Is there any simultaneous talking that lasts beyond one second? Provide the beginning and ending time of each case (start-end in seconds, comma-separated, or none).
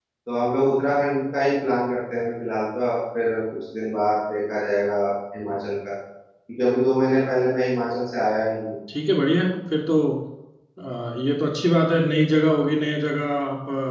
none